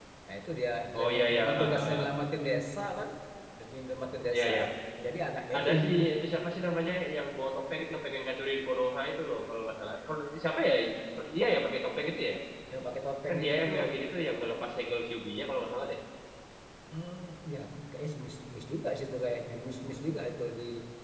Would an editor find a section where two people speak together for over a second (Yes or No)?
Yes